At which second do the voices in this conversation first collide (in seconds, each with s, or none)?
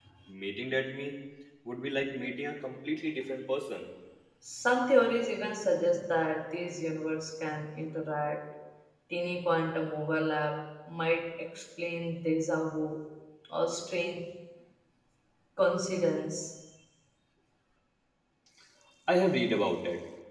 none